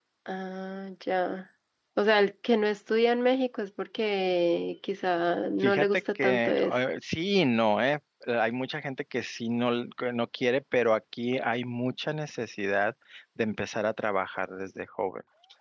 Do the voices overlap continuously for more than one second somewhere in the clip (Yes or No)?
Yes